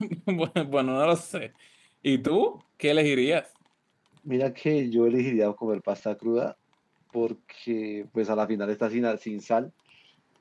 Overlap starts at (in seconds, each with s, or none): none